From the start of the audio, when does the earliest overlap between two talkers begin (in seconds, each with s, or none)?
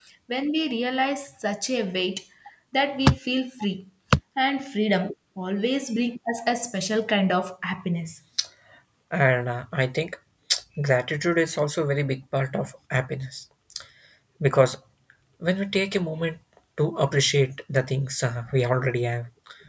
none